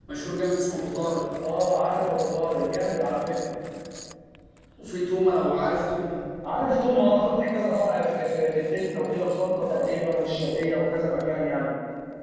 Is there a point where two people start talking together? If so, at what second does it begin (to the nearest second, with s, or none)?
none